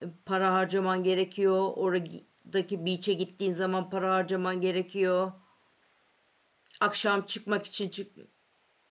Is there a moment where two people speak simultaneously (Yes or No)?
No